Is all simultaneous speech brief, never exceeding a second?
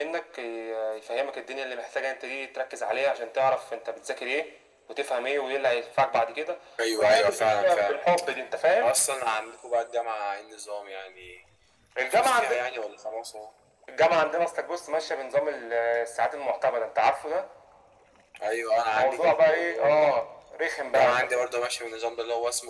No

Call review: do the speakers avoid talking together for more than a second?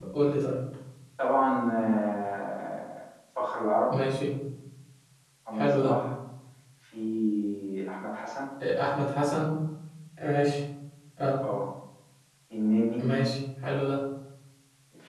Yes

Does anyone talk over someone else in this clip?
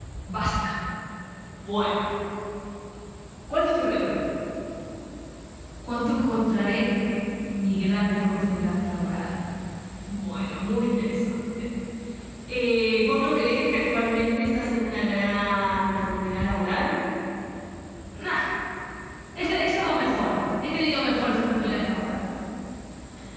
No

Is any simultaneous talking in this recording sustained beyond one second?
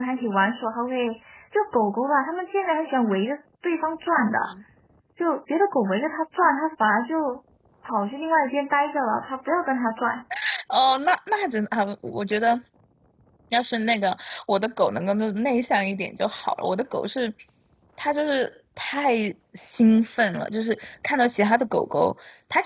No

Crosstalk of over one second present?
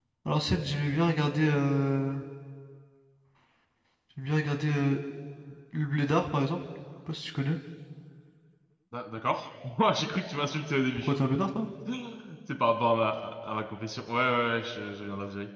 No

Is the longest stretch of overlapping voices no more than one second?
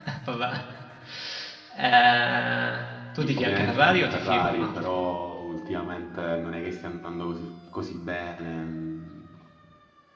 No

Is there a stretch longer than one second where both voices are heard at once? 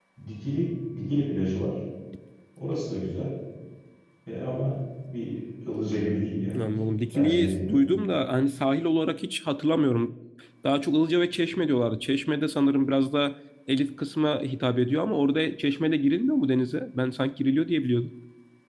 Yes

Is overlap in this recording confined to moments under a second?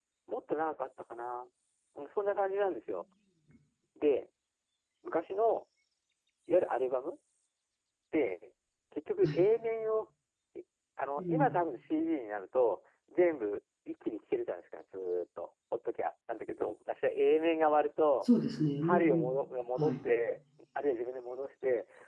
Yes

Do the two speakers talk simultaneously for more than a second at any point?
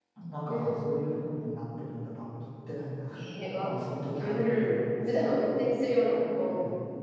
Yes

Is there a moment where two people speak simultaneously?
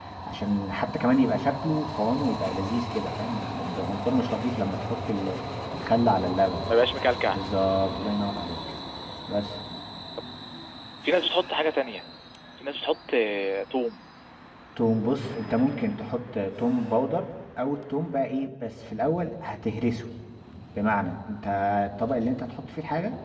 No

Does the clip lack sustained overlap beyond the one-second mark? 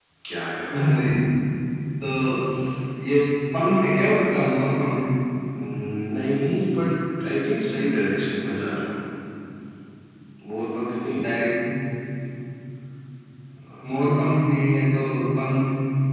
Yes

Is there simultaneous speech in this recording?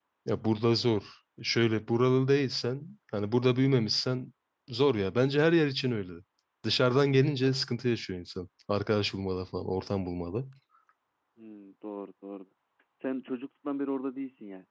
No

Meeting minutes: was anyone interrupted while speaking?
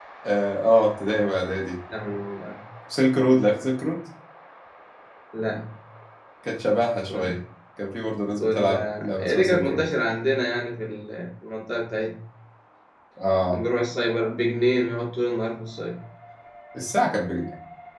Yes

